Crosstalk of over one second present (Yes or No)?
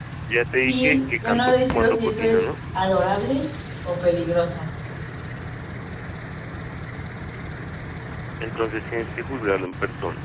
Yes